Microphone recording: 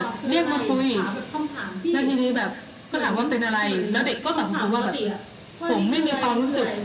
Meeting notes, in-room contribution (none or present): present